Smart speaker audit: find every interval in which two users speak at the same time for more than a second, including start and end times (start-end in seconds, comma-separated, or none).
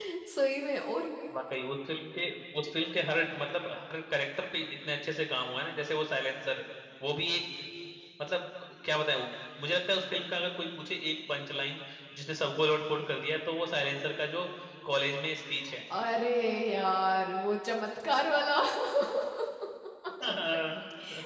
none